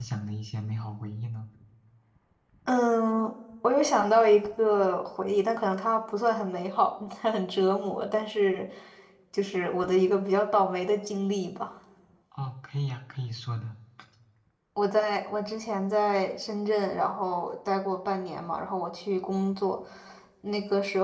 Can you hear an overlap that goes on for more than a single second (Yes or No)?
No